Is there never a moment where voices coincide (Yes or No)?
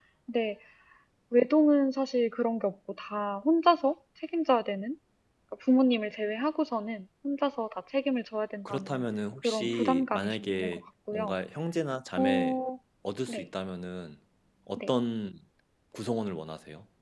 No